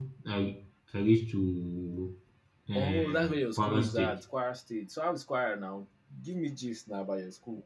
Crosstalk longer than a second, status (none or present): present